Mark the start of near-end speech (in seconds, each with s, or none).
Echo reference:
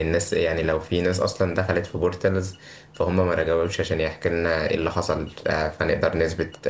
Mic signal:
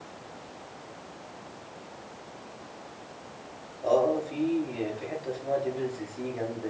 3.8 s